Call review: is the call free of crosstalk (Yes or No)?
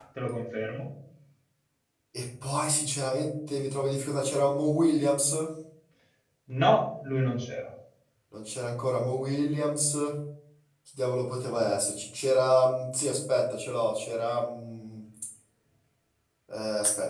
Yes